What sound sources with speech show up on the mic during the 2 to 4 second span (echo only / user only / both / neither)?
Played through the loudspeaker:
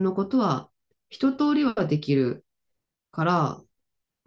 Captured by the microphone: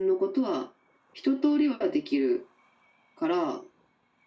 echo only